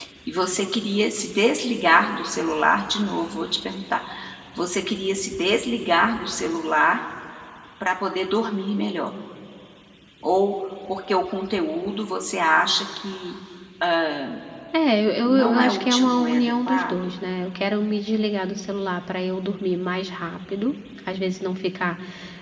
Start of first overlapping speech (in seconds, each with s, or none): 15.2 s